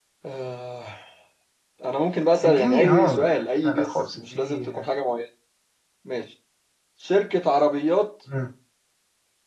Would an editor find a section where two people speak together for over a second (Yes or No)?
Yes